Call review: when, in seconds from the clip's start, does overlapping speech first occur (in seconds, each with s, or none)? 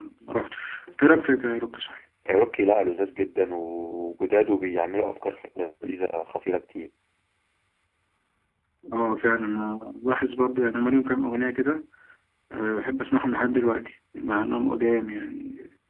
none